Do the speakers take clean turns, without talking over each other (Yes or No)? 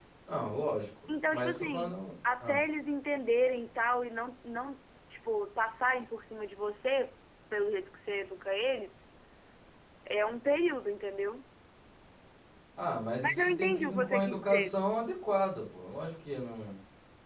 No